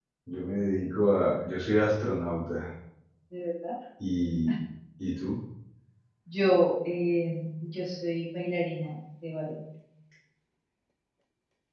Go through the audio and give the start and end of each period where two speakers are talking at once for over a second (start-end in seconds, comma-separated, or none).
none